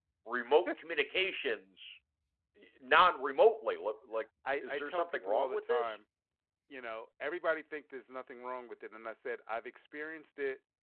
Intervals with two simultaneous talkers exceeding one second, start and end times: 4.6-5.9

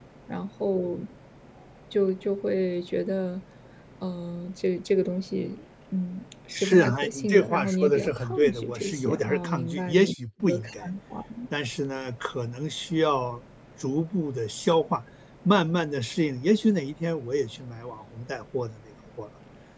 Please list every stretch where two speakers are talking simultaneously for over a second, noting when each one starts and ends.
6.5-10.1

